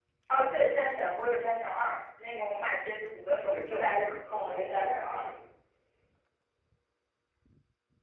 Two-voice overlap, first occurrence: 3 s

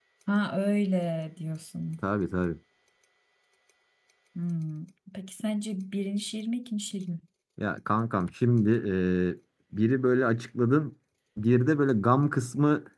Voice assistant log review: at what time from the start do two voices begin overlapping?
none

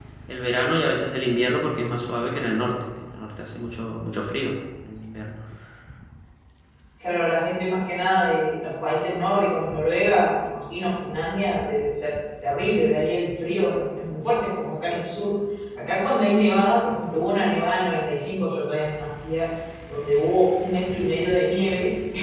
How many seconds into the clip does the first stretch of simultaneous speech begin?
none

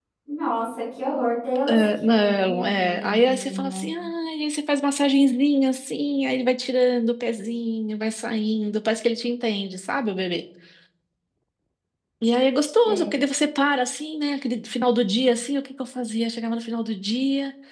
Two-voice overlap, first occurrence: 2 s

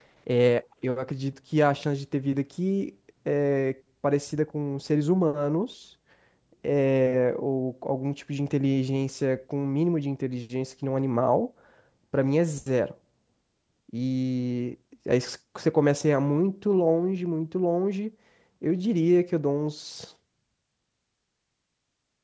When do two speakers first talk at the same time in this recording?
none

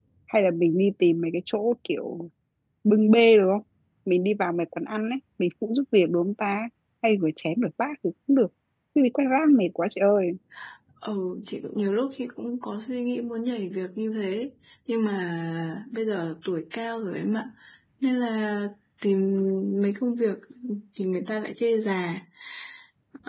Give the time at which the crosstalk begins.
none

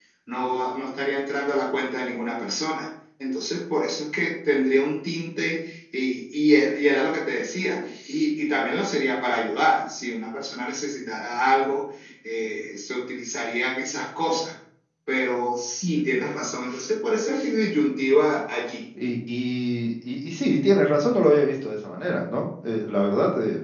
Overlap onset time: none

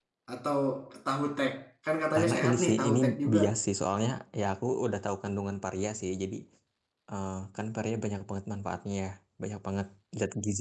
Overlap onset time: 2 s

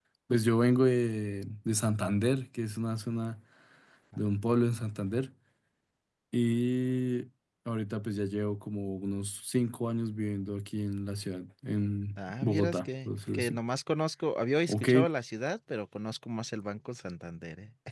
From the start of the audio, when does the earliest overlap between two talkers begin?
12 s

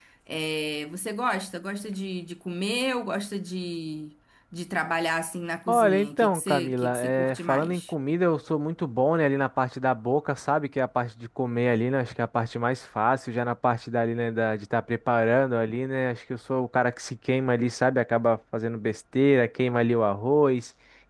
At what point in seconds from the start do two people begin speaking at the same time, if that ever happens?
6 s

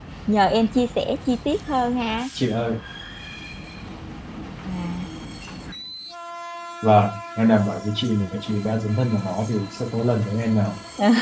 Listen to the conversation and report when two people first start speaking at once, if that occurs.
none

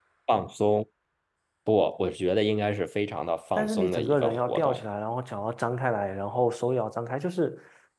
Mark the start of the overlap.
4 s

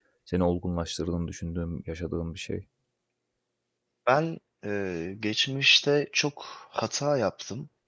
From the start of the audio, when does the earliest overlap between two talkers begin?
none

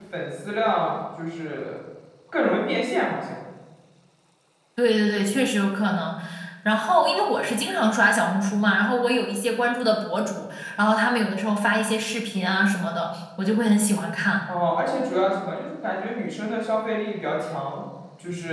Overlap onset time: none

